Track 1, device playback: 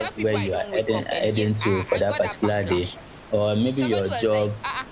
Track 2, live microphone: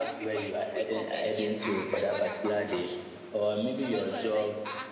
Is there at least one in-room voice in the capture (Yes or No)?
No